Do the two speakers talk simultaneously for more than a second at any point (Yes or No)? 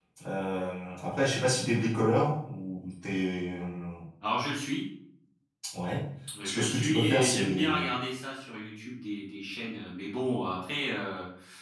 Yes